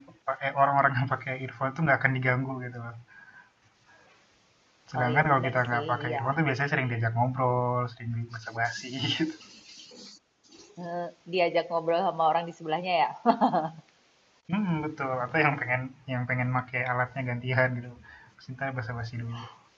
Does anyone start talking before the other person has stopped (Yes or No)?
Yes